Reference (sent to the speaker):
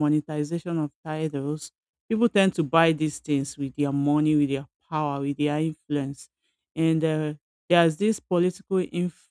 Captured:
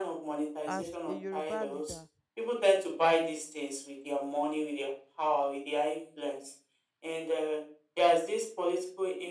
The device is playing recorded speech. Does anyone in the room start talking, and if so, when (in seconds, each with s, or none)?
0.6 s